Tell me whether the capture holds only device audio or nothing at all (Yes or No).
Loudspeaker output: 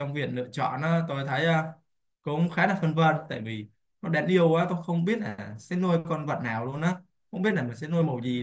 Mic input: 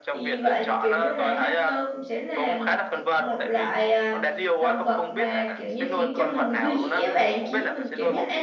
No